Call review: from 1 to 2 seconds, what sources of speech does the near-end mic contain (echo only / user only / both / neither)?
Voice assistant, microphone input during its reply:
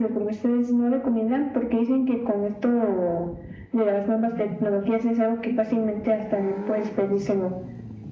echo only